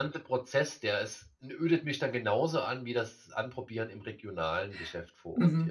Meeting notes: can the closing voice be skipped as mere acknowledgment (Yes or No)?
No